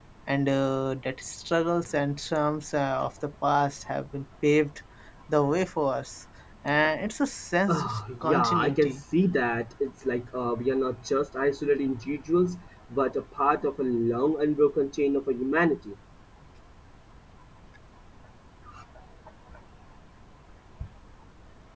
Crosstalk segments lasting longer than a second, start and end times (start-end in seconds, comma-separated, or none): 7.7-9.0